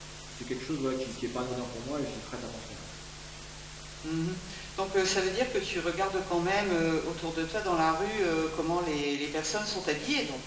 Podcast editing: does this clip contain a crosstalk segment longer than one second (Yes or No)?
No